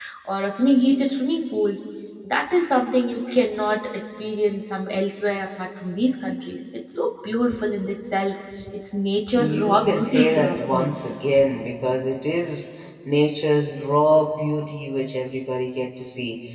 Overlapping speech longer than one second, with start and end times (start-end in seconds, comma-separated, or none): 9.4-10.9